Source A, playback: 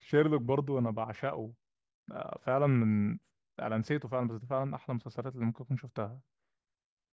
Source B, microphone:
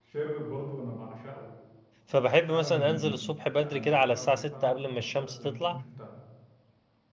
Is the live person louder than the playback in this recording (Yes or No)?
Yes